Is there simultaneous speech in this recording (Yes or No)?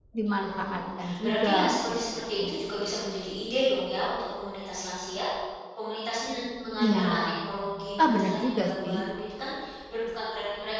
Yes